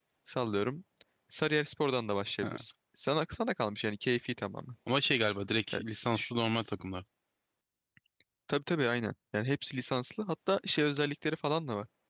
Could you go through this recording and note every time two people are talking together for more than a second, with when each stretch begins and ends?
none

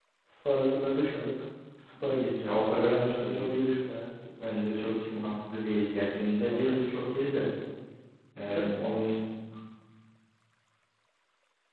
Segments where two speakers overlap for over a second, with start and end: 2.0-3.4

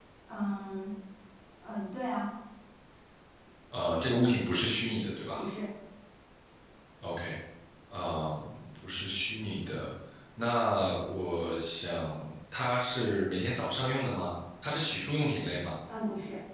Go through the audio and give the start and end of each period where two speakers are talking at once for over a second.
none

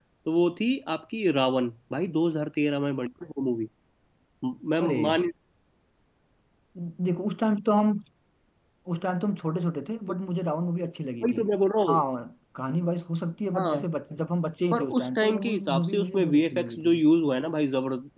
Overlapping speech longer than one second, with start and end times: 14.7-16.9

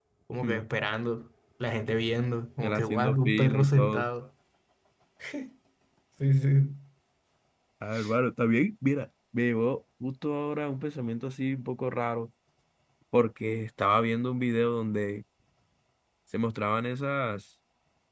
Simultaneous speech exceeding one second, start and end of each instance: 2.6-4.1

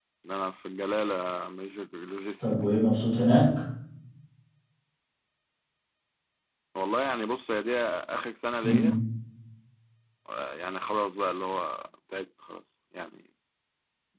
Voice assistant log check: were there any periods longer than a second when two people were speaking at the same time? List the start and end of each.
none

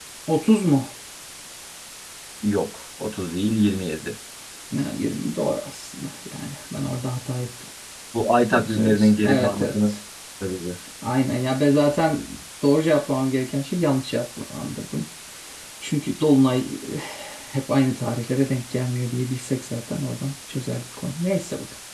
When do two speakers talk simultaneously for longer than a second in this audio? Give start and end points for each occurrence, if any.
8.5-9.9

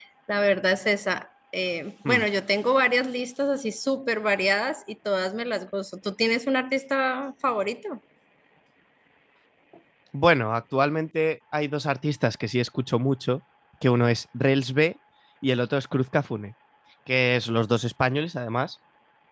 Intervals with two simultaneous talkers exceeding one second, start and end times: none

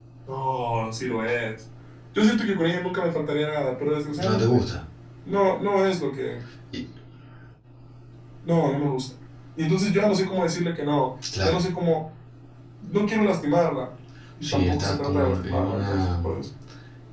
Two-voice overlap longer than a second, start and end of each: 14.4-16.1

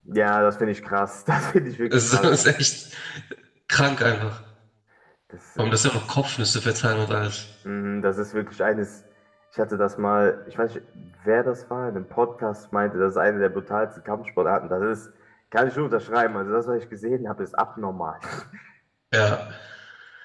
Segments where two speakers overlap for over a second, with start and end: none

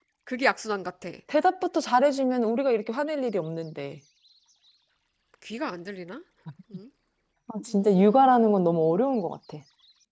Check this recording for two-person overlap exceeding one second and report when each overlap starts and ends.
7.7-9.0

